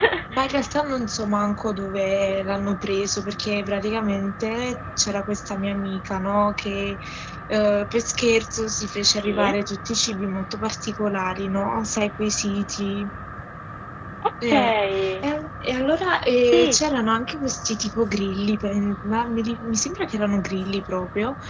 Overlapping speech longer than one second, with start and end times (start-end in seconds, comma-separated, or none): none